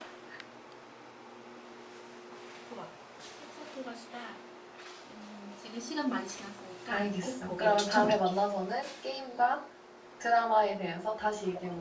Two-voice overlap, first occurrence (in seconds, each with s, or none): 6.9 s